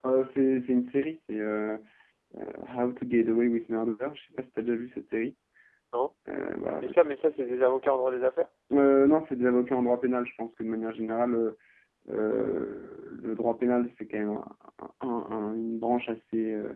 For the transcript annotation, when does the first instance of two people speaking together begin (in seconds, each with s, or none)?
none